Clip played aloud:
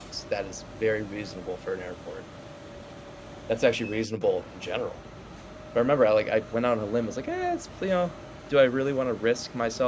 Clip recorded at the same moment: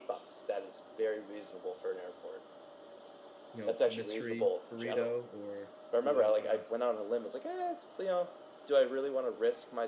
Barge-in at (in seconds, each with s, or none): 3.5 s